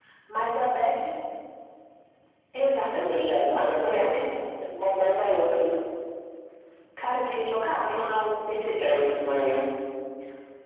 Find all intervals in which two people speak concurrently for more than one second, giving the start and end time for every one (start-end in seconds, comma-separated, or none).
2.9-4.2